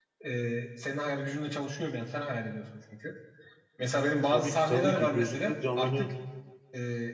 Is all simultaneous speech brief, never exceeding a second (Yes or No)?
No